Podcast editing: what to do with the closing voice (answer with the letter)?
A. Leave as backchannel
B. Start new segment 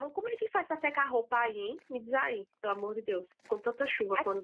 B